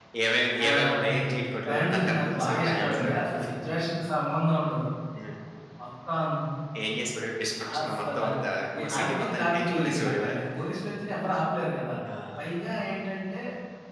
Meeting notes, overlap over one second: present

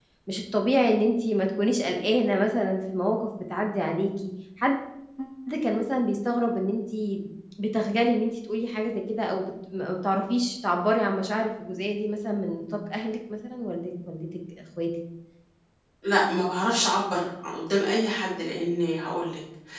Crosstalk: none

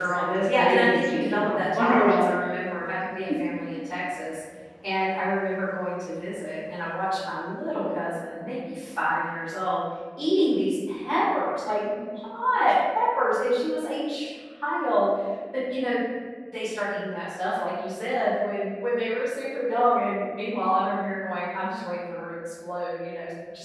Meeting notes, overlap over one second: present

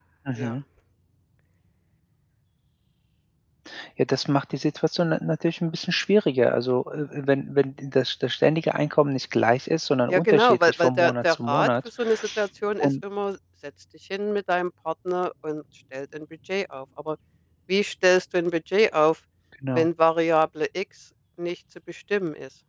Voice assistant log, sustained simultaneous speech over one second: present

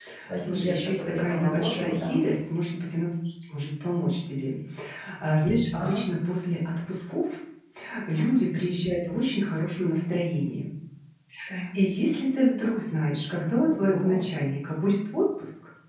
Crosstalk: present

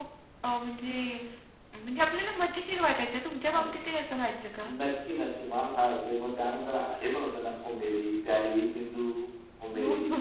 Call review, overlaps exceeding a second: none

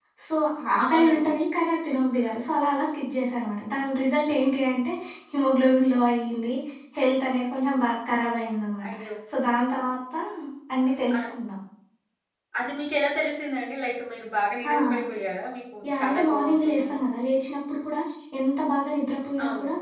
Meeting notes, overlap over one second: present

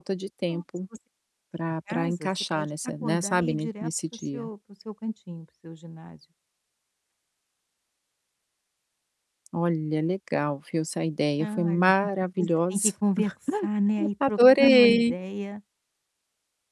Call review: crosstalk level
present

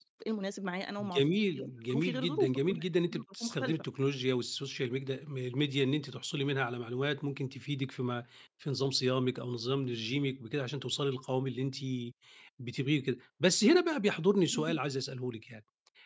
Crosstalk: present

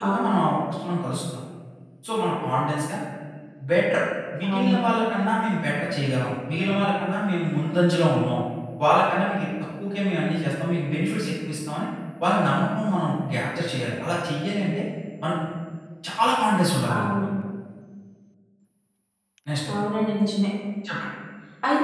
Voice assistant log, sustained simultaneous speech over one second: none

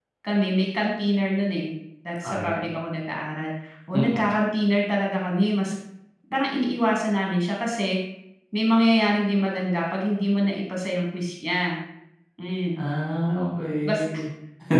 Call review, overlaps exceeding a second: none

